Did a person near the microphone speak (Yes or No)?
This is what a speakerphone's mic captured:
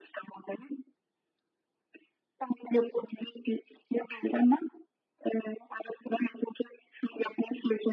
No